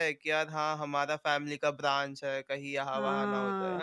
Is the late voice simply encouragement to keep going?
No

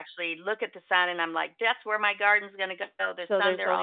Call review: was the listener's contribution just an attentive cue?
No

